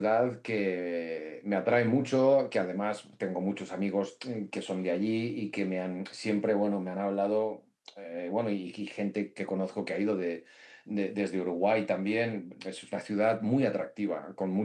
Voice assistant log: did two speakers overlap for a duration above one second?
No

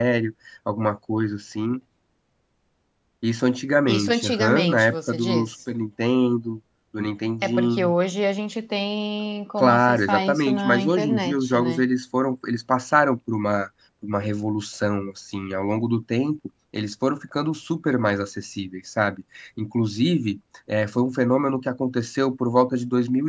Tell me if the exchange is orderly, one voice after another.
No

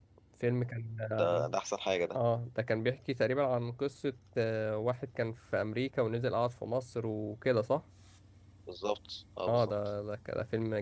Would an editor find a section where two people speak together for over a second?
No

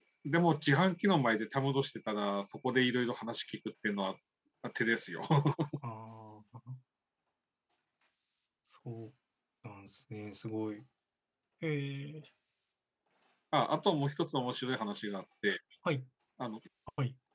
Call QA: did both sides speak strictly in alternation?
Yes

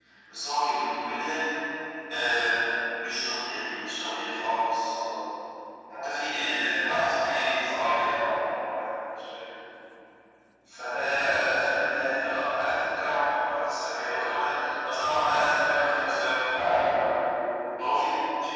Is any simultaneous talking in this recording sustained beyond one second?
No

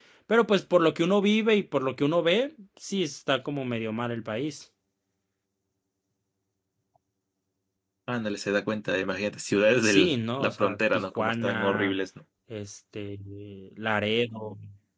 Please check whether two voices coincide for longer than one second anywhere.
Yes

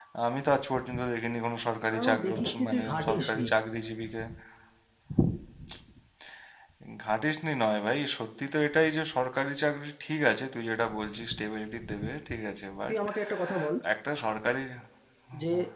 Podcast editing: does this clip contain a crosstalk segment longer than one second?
Yes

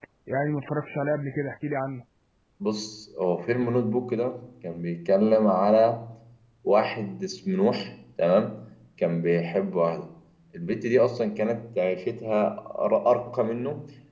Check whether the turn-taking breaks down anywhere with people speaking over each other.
No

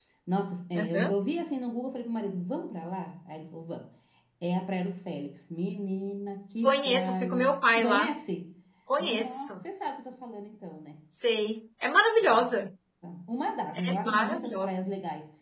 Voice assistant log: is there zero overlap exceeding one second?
No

